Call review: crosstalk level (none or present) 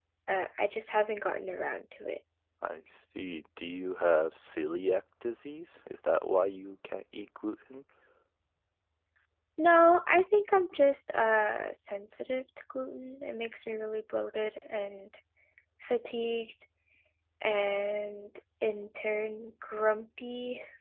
none